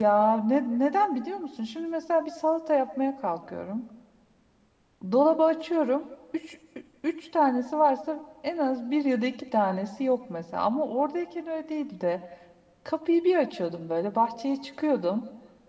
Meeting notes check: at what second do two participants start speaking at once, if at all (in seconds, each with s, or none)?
none